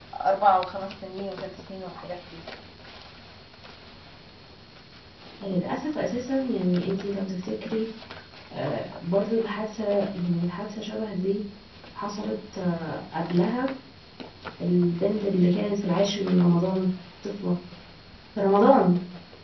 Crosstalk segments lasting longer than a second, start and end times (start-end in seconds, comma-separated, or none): none